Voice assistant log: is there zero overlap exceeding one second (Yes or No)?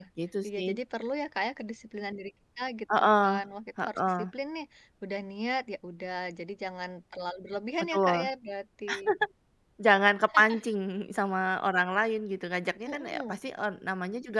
Yes